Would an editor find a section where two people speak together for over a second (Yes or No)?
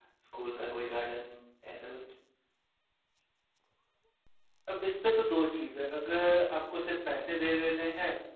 No